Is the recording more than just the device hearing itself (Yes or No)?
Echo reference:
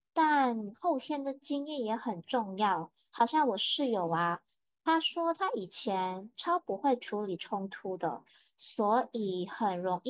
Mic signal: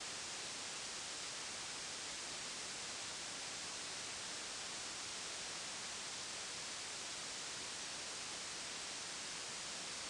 No